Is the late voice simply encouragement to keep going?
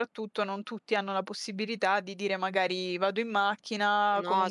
Yes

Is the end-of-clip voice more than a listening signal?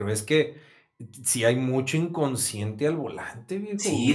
Yes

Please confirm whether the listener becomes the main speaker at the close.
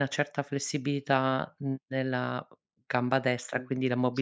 Yes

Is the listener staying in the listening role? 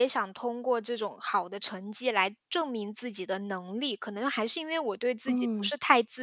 Yes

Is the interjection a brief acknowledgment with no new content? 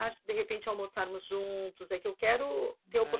Yes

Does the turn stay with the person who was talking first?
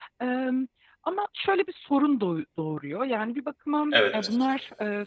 Yes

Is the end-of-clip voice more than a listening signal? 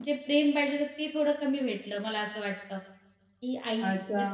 Yes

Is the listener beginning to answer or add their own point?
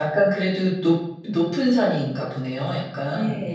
Yes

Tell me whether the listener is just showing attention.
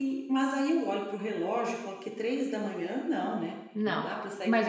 No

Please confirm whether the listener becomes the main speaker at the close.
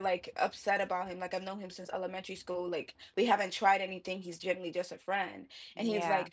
No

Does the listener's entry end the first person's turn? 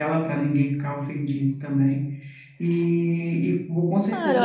Yes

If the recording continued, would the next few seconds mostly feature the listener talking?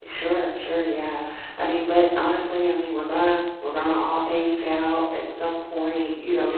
No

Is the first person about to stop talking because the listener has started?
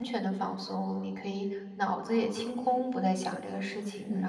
Yes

